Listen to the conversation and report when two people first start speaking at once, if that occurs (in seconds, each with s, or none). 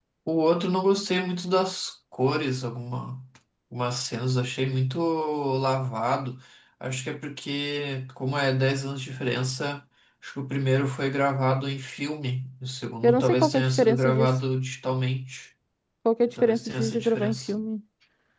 13.0 s